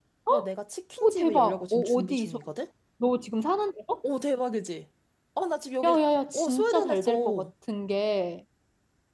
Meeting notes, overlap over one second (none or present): present